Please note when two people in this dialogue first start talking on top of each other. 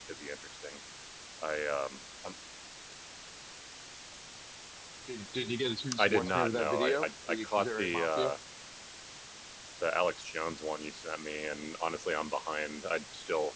5.9 s

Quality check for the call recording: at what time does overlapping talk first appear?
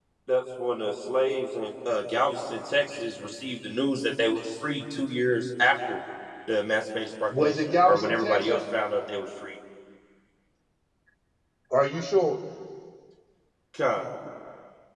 7.3 s

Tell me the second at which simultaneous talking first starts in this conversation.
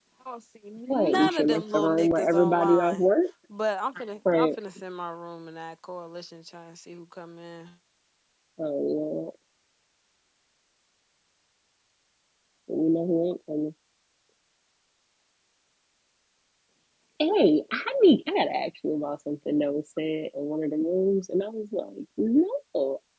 0.9 s

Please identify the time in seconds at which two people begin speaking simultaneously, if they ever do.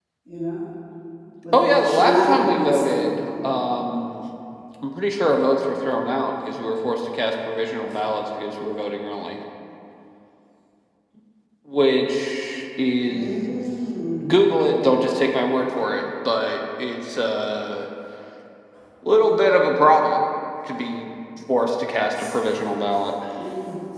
1.5 s

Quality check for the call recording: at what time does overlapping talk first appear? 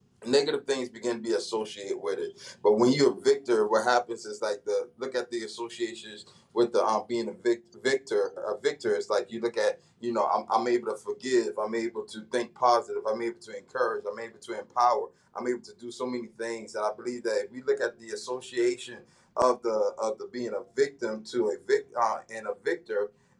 none

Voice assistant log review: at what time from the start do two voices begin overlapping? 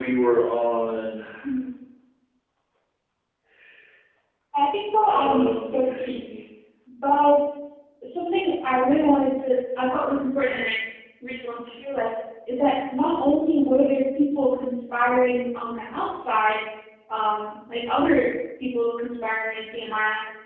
5.0 s

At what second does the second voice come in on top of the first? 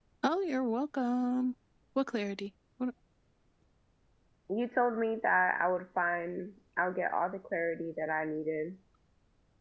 none

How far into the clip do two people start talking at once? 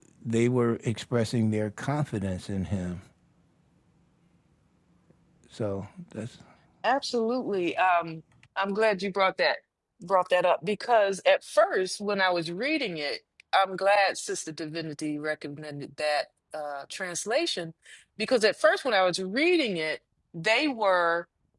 none

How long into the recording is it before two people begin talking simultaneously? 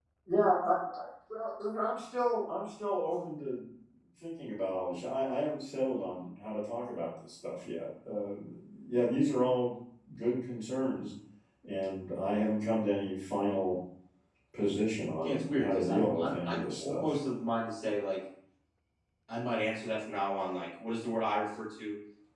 15.2 s

